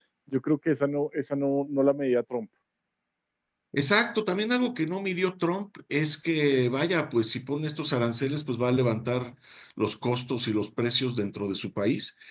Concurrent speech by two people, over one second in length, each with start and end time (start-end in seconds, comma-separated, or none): none